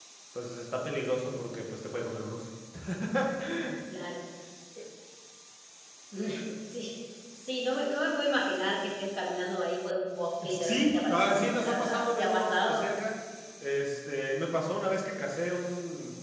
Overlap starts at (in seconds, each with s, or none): 10.4 s